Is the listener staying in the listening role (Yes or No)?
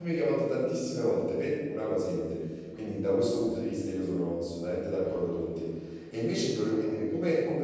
Yes